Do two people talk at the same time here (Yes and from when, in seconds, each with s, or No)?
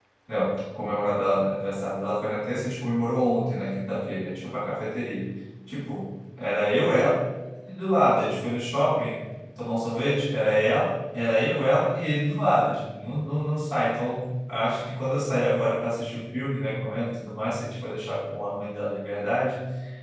No